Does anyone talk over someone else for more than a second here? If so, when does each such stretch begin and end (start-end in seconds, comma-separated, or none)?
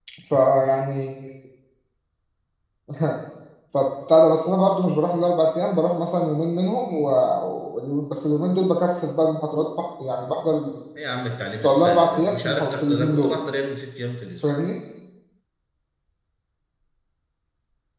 11.6-13.4